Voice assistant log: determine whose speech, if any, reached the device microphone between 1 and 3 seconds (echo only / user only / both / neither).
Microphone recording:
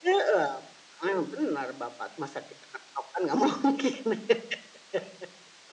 echo only